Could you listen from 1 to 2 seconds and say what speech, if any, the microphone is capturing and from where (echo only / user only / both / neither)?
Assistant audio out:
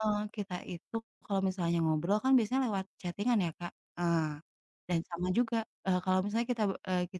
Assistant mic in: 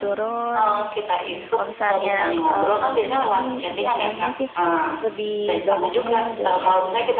both